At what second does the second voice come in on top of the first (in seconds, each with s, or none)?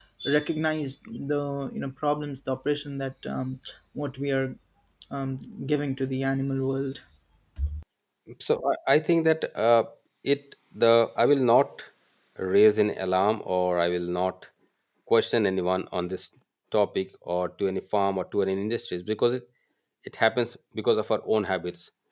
none